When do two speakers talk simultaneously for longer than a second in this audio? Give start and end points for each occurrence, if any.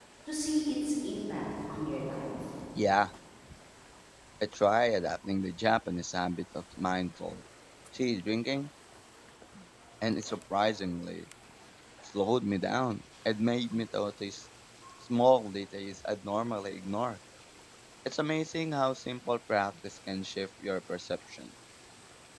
none

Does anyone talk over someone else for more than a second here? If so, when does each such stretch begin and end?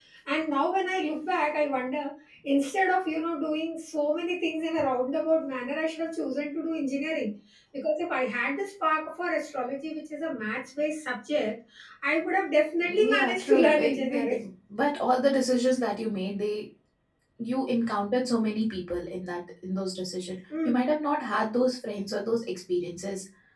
12.8-14.3

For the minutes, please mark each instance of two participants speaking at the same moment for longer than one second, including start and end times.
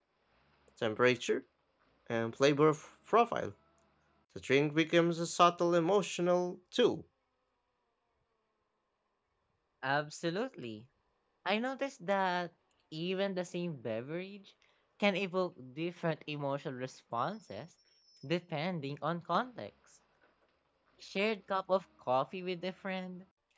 none

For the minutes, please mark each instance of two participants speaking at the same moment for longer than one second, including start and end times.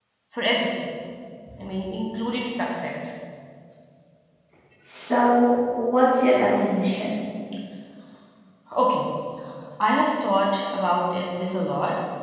none

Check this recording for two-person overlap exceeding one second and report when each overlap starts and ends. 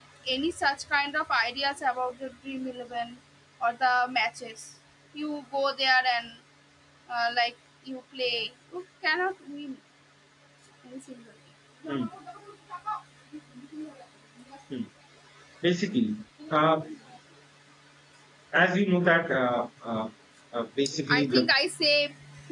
none

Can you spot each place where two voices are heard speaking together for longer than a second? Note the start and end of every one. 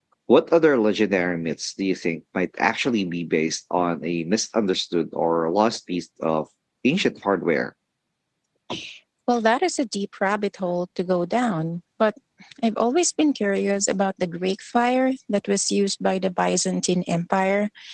none

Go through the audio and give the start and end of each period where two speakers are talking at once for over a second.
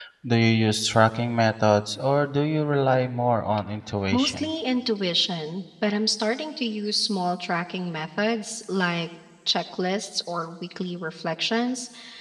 none

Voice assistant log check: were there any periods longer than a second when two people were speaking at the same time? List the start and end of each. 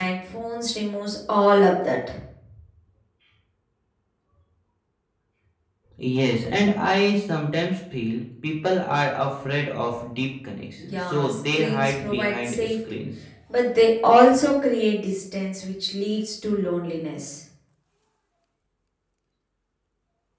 10.8-12.8

